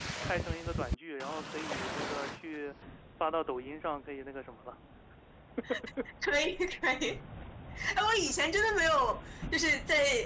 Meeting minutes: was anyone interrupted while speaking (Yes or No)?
No